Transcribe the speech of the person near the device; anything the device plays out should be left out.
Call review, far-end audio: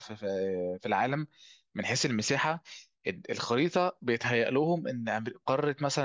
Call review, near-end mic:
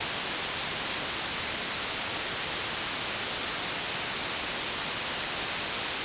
none

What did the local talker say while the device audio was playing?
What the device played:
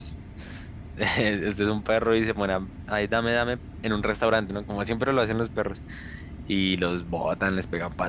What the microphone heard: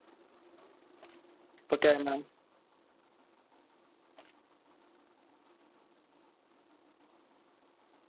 Porque además,

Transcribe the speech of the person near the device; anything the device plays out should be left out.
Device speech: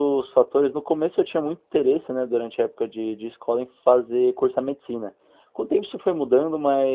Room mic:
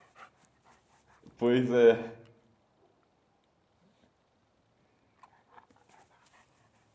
Pois é.

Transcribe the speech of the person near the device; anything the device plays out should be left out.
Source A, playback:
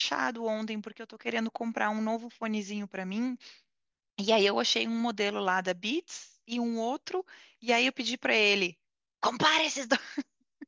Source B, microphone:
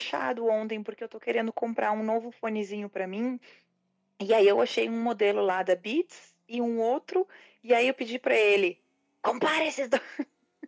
none

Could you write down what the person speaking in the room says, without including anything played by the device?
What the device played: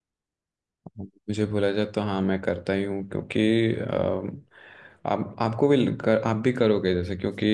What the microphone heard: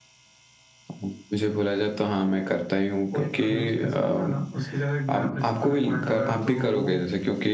वो एक खड़ूस प्रिंसिपल था ना उसकी जगह एक नया प्रिंसिपल अपॉइंट हुआ है तो वो

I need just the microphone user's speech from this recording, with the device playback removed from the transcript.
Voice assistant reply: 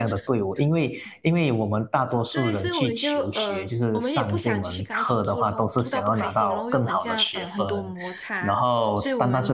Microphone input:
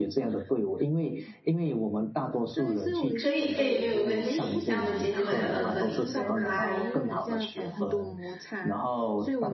可以，可以，没有问题。那我们今天就聊到这里，拜拜。

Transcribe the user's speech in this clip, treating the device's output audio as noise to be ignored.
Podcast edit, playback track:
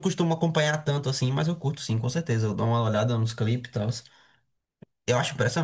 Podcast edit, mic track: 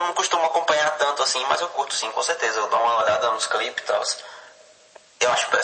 none

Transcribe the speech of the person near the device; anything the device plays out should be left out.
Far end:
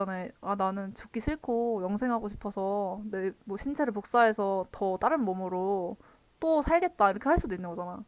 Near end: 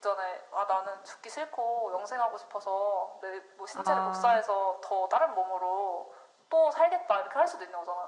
아,

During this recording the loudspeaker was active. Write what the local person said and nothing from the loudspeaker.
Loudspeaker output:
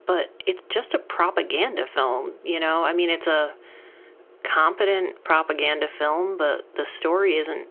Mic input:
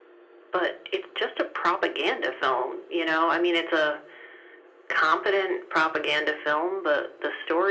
none

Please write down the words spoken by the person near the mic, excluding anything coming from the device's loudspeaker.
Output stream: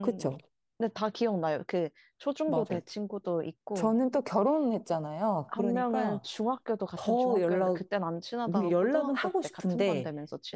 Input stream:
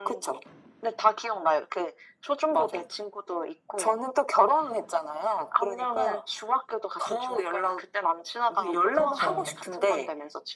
그쵸.

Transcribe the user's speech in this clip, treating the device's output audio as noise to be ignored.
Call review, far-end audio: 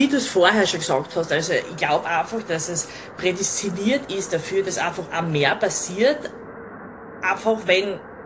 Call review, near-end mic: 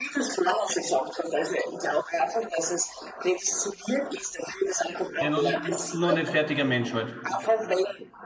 Ja, noch nicht, noch nicht fertiger Mensch halt.

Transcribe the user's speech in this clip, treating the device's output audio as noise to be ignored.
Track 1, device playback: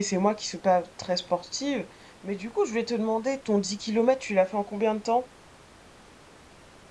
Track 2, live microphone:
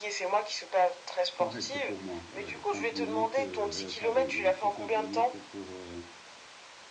correct pour moi. Ouais, 30 minutes, euh, euh, pardon, euh, 60 minutes pour, euh,

